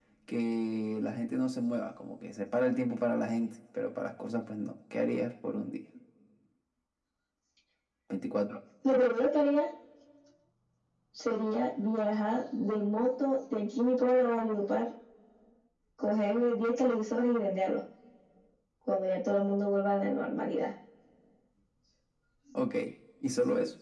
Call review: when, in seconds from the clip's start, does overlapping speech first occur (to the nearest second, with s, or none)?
none